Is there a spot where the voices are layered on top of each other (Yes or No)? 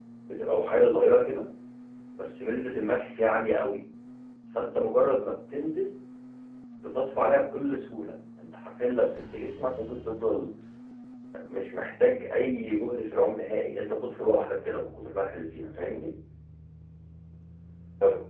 No